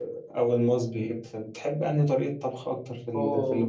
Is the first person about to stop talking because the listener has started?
No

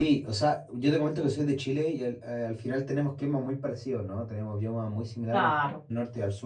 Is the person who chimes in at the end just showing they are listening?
Yes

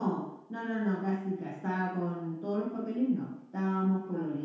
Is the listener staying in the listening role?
Yes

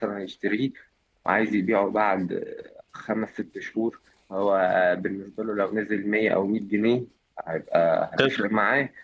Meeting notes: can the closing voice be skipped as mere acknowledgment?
Yes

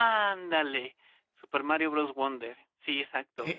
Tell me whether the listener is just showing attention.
No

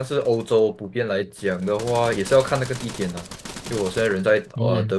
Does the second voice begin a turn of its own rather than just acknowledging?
No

